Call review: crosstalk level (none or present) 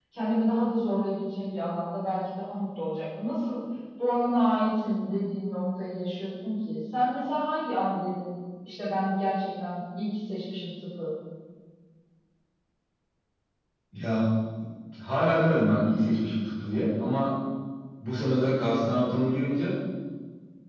none